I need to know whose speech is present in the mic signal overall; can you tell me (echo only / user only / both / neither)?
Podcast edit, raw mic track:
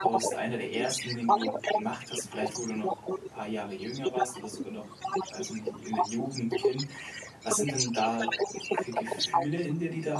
both